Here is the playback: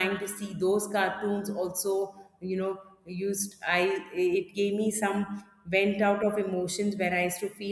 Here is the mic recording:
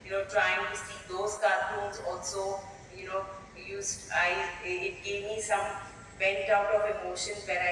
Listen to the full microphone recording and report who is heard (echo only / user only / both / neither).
echo only